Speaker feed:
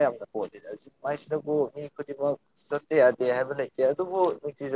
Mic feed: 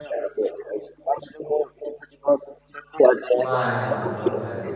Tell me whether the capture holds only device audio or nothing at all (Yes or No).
No